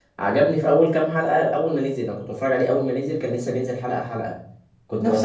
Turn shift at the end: No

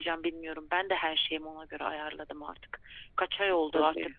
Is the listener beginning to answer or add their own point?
No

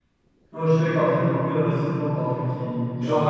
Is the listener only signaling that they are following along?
No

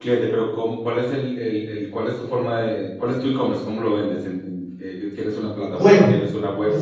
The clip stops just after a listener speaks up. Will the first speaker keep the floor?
No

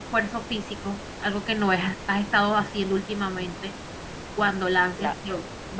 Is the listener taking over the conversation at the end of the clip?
No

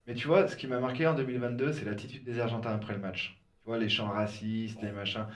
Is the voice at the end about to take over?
No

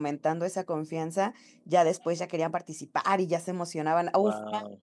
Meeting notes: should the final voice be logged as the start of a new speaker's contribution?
No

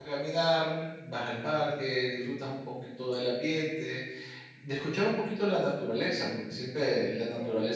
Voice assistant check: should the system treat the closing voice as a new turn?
No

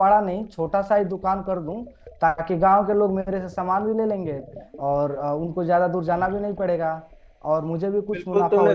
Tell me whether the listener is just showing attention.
No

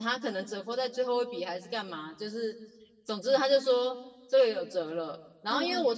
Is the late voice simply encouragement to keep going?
Yes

